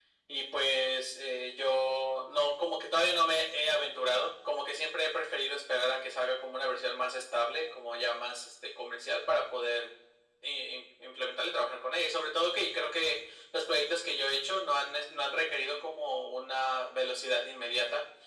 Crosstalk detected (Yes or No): No